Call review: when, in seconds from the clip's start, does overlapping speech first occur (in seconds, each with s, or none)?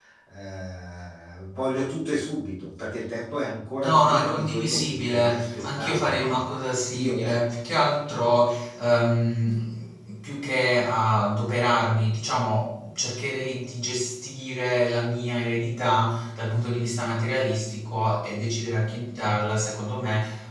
3.8 s